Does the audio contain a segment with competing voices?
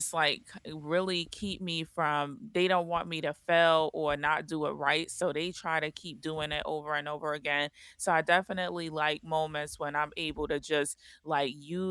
No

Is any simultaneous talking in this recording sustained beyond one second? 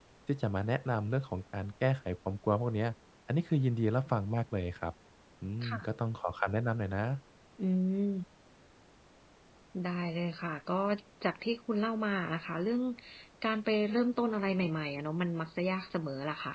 No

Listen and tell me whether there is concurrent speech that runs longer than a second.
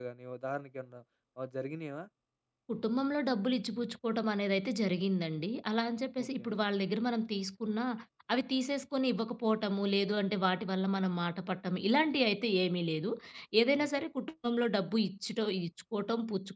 No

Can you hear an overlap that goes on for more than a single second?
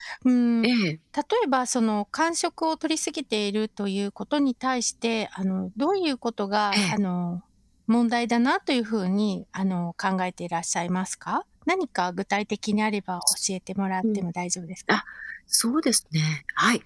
No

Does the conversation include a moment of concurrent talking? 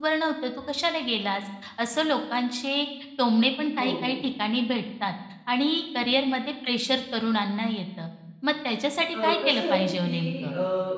Yes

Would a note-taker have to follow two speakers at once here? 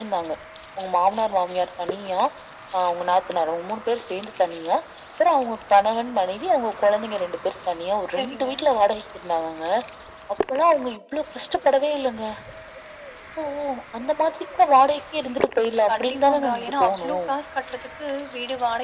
Yes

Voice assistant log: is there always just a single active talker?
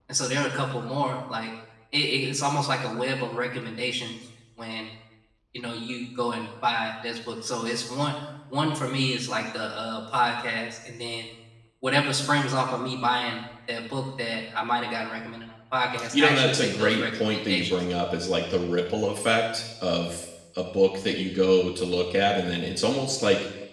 No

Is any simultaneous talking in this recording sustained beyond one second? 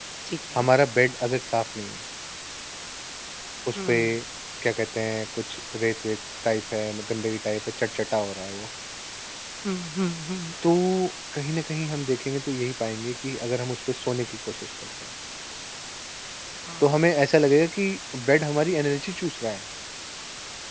No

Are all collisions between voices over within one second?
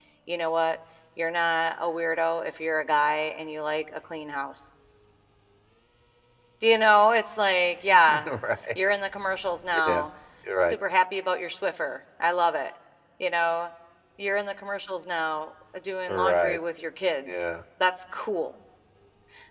Yes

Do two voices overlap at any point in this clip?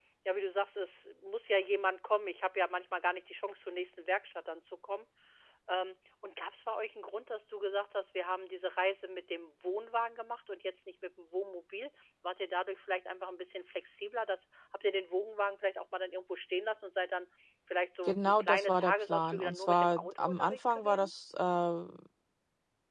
Yes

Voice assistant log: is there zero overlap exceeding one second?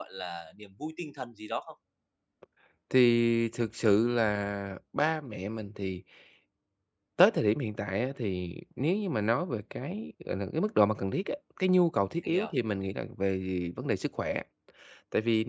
Yes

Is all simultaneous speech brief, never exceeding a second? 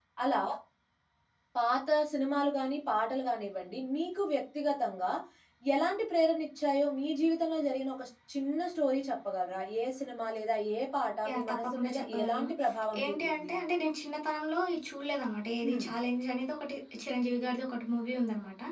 No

